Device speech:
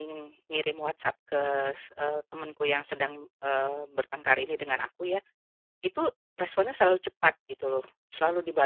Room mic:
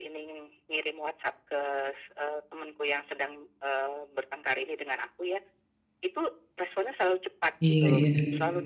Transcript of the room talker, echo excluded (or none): iya iya.